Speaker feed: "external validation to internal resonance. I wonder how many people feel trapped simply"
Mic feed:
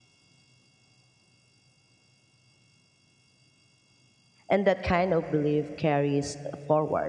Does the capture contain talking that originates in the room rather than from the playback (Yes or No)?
Yes